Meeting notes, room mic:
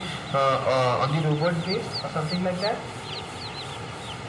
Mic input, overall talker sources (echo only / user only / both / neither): echo only